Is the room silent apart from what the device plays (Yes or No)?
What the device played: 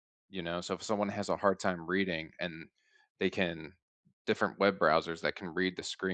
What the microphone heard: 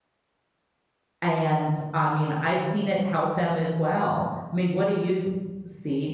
No